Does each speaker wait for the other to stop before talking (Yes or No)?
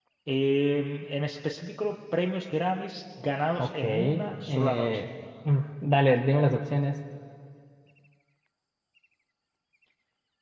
No